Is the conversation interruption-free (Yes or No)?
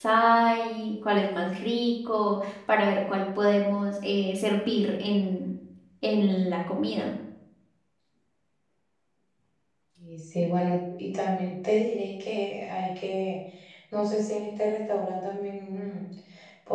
Yes